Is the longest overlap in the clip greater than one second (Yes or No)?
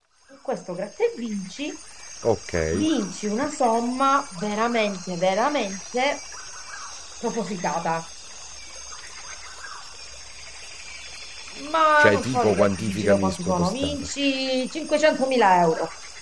Yes